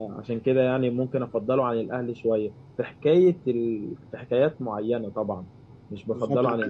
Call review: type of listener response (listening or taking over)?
taking over